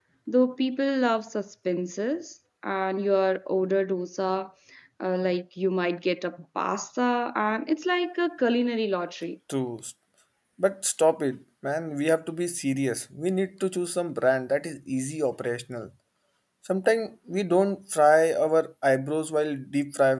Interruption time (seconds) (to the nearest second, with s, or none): none